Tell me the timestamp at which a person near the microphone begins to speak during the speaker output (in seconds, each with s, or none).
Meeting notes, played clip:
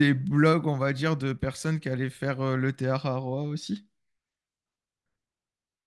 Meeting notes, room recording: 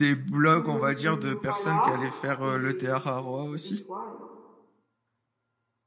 0.5 s